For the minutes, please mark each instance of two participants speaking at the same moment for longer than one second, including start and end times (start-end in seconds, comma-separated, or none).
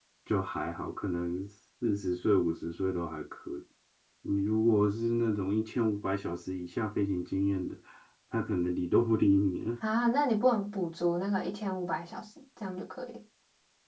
none